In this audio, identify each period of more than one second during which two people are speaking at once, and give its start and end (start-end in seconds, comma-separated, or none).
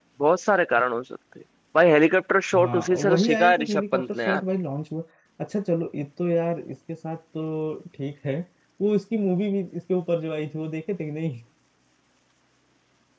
2.5-4.4